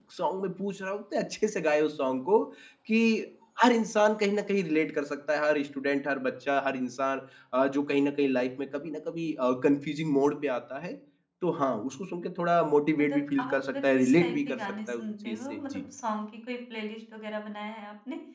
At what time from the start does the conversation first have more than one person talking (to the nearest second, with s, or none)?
13 s